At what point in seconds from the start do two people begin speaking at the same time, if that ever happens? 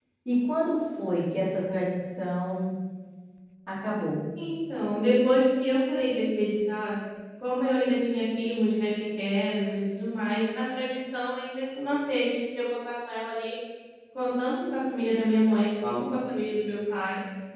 none

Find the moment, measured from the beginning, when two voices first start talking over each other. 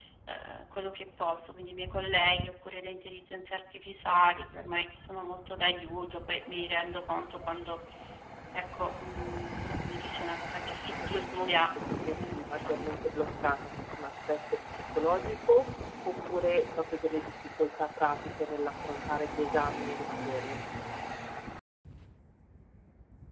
11.0 s

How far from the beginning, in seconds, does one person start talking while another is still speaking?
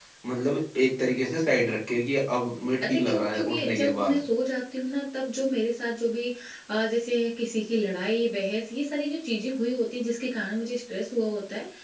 2.8 s

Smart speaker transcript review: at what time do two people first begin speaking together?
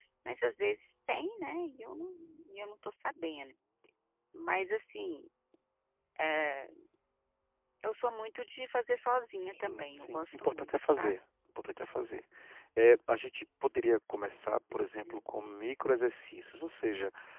9.4 s

